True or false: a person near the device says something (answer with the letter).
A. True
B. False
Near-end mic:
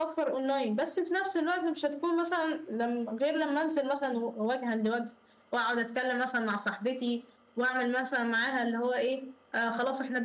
B